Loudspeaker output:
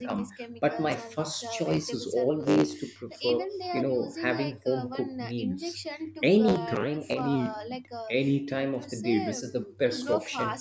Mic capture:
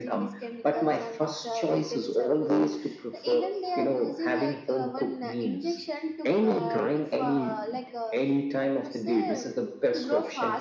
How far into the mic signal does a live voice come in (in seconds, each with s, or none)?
none